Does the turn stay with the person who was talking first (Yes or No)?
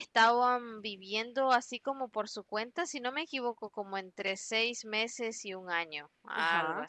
No